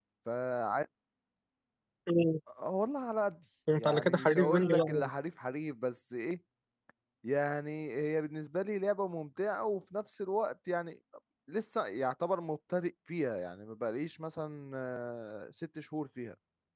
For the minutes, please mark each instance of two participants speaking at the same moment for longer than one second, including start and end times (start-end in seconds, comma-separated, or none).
3.8-5.1